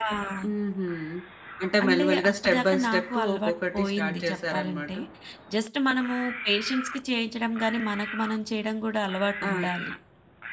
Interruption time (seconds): 1.8 s

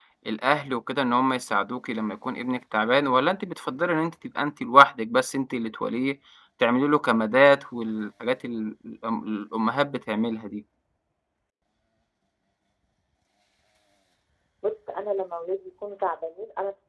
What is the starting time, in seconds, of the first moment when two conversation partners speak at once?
none

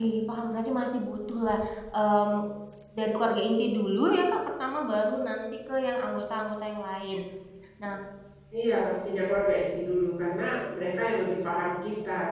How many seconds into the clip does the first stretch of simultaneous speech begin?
none

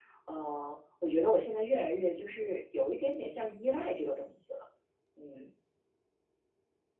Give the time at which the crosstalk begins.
none

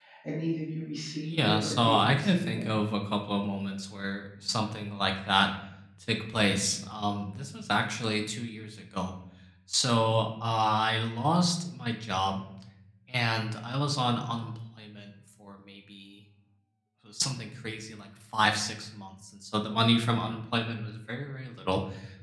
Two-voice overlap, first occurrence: 1.2 s

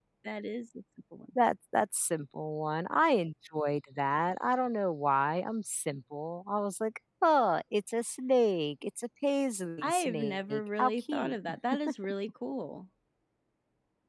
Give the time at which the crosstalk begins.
9.8 s

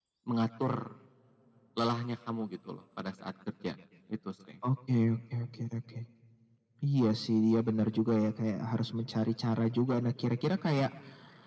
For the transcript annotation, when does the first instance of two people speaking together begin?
none

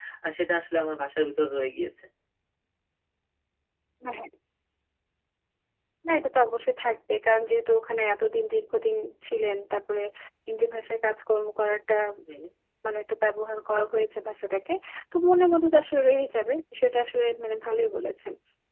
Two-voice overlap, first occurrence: none

